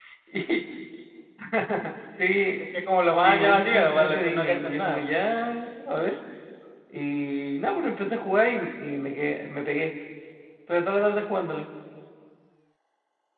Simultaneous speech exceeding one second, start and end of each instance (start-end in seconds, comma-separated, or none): 3.2-5.1